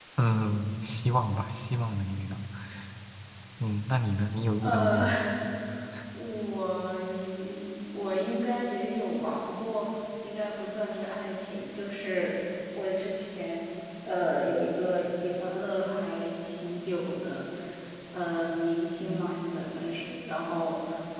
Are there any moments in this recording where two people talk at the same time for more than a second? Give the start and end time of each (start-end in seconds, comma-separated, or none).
none